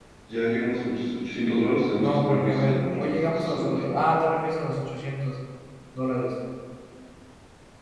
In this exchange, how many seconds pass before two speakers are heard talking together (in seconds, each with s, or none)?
2.0 s